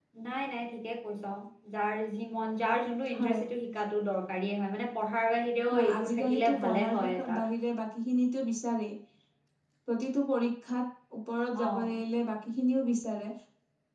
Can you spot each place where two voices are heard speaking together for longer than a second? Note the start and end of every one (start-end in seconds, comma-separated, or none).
5.7-7.3